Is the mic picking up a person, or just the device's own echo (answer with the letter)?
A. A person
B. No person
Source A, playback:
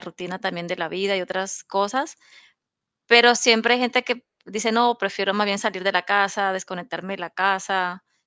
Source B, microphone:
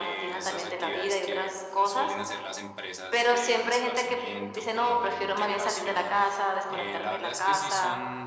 A